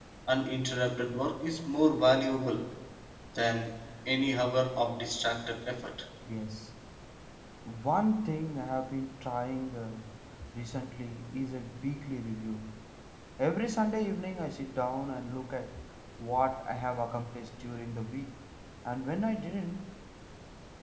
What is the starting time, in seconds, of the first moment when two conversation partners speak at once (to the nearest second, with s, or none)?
none